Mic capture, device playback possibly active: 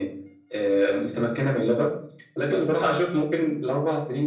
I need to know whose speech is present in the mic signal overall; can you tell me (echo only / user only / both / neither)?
echo only